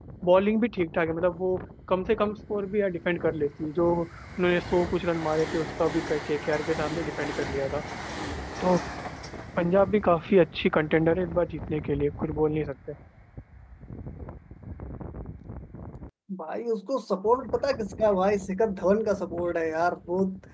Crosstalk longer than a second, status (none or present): none